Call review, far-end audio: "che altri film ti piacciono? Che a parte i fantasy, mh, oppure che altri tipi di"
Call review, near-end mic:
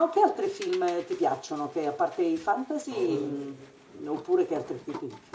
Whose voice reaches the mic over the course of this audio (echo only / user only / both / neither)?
both